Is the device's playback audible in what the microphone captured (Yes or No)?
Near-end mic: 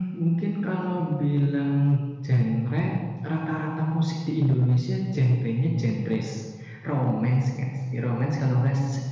Yes